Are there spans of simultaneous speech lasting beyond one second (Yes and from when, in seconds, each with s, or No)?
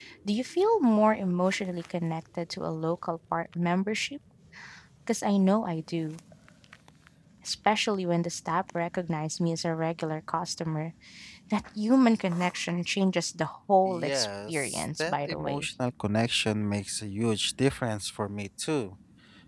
Yes, from 13.9 s